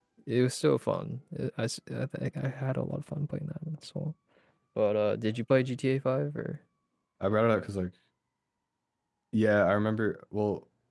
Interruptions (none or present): none